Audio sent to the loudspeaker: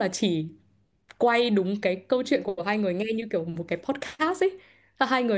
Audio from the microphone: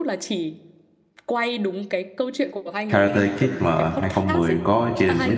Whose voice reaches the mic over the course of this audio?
both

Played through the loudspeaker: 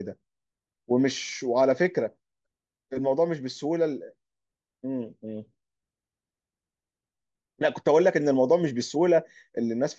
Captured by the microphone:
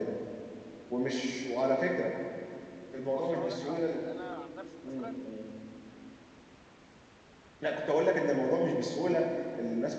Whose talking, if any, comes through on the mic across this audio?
both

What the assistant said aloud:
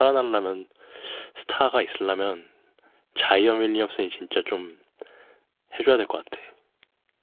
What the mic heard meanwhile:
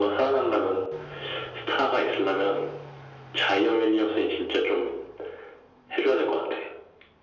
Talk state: echo only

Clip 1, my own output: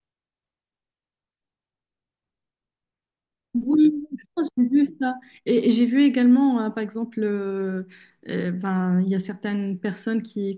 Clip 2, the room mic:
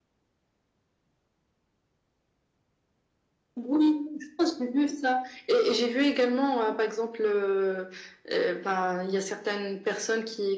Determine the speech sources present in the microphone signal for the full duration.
echo only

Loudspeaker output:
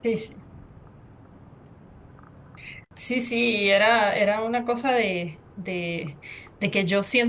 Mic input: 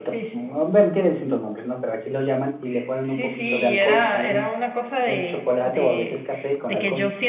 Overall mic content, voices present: both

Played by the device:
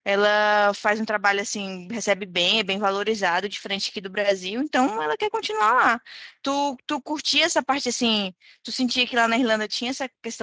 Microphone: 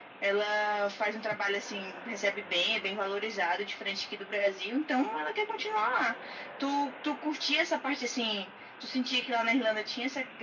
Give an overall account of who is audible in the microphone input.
echo only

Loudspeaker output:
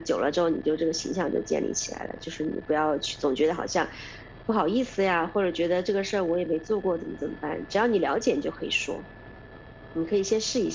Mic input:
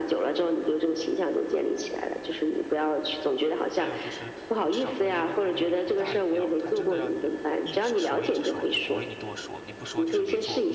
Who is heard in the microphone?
both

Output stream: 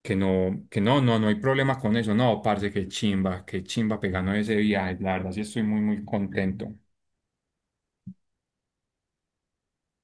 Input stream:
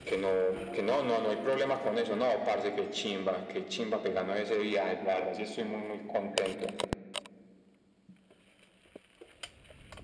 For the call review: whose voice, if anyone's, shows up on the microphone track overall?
echo only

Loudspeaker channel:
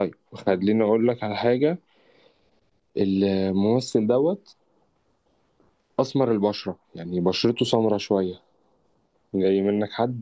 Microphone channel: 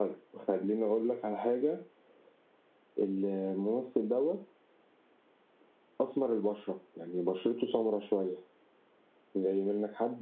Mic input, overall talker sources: echo only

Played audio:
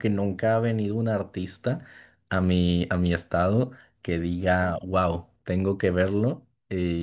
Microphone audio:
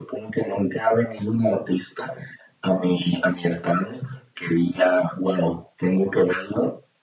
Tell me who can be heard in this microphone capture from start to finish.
echo only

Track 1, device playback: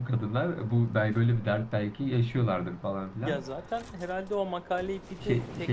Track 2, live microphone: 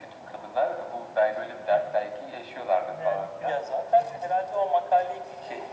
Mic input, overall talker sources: both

